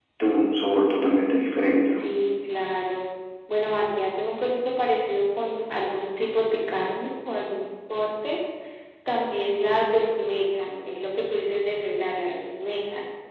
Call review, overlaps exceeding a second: none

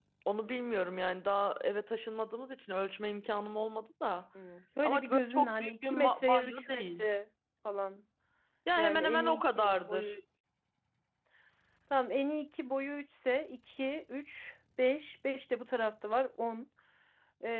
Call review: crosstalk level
present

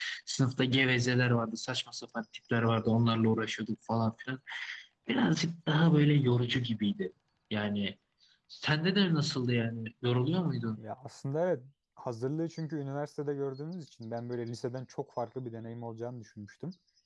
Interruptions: none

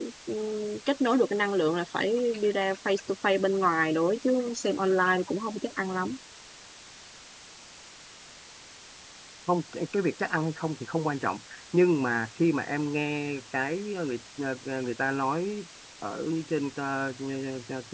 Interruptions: none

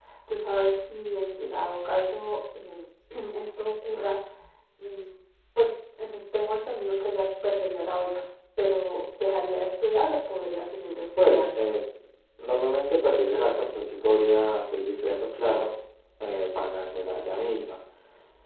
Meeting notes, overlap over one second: none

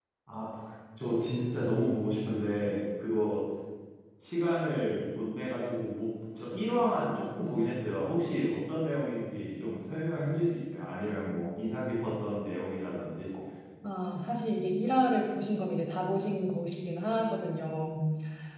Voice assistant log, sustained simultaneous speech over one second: none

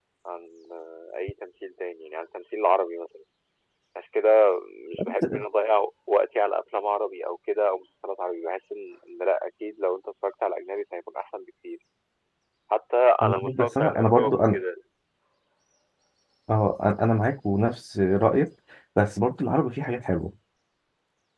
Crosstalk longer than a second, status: present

